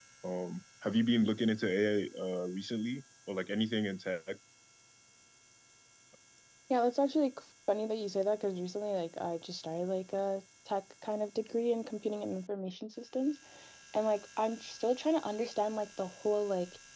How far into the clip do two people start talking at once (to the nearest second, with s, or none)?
none